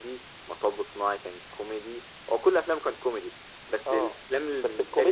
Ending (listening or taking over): taking over